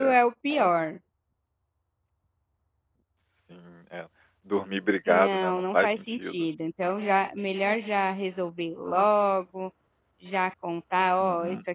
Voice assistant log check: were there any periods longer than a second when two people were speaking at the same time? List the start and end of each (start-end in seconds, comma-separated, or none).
5.1-6.5